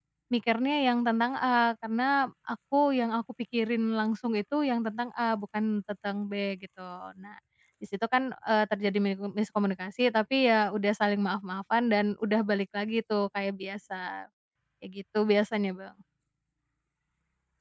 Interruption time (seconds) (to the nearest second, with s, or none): none